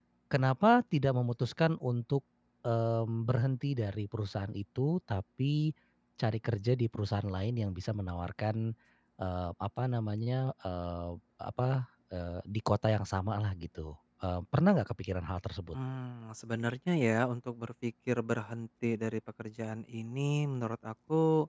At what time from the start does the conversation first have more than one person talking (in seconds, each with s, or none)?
none